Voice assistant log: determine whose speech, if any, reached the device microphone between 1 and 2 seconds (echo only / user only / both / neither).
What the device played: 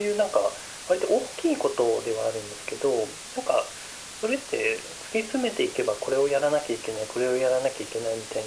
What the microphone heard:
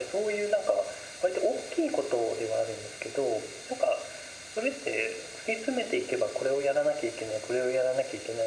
echo only